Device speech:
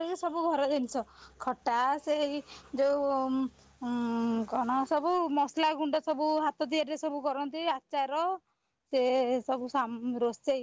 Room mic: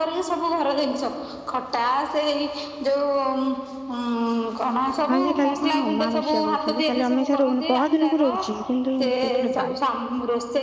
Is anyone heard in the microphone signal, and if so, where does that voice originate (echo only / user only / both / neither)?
both